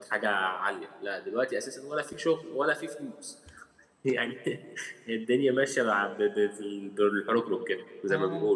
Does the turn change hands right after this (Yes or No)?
Yes